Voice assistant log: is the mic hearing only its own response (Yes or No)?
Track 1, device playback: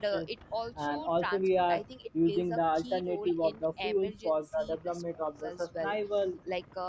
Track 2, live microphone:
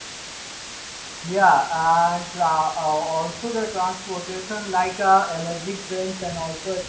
No